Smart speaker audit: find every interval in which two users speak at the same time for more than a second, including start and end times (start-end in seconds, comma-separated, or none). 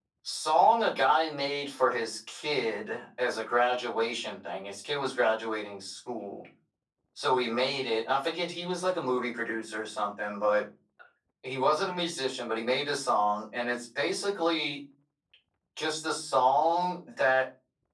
none